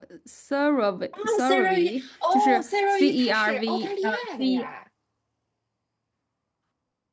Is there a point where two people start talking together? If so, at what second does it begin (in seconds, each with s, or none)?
1.1 s